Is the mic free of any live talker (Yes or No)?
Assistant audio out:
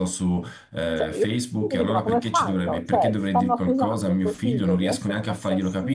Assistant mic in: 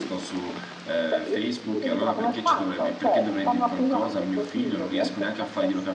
Yes